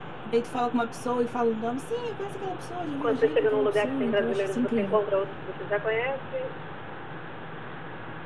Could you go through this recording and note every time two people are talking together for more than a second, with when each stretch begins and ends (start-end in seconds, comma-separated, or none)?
3.0-5.0